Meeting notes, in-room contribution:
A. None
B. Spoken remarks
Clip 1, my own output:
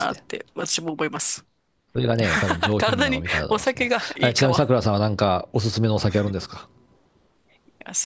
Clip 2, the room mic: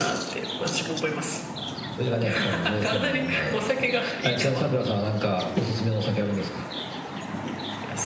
A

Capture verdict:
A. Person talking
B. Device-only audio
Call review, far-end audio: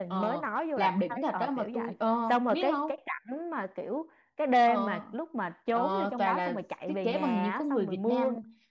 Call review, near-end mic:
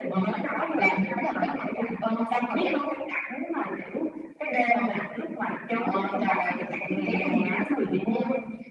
B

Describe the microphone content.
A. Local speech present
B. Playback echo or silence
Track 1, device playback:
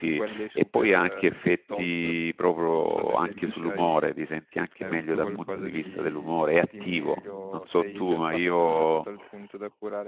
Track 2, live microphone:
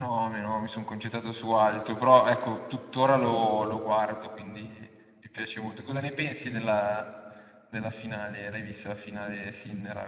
A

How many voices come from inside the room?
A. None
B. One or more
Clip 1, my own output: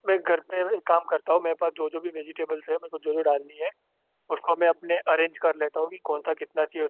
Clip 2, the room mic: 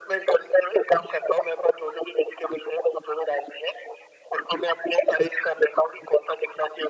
A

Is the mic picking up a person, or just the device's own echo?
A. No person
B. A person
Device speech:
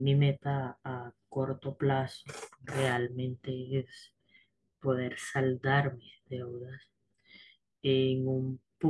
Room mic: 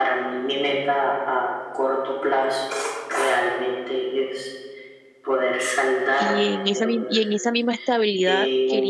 B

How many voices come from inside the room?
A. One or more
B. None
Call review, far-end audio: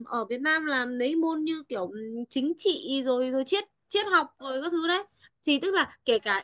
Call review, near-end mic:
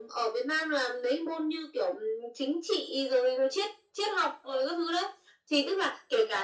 B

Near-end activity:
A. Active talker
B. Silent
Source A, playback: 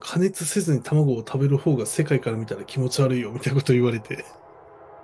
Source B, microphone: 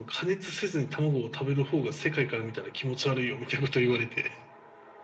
B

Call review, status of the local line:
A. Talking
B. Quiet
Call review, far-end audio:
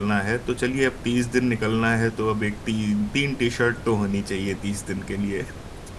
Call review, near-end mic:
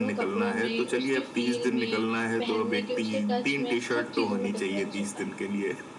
A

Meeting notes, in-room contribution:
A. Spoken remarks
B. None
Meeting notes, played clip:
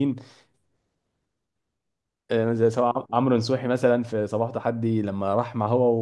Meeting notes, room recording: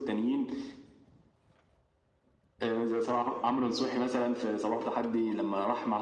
B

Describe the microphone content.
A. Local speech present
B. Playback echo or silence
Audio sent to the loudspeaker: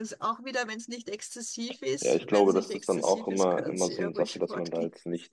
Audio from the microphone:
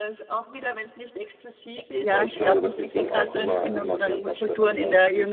A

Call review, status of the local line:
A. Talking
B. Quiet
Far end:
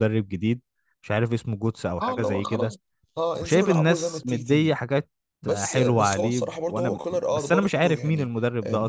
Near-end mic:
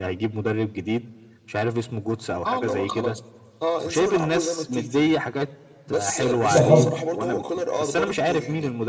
A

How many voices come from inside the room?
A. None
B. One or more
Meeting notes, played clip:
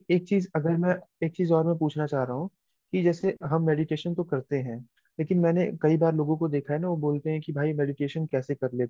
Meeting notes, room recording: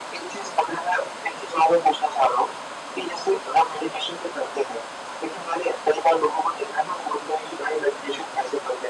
A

